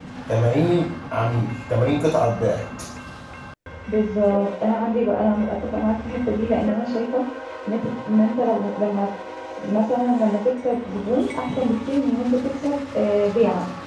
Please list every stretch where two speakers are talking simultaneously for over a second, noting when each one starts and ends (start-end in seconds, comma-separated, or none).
none